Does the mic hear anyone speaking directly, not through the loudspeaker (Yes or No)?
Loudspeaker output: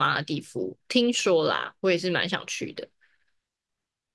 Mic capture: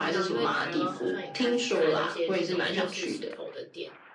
Yes